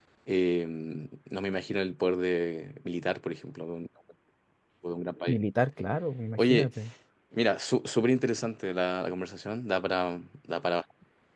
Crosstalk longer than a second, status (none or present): none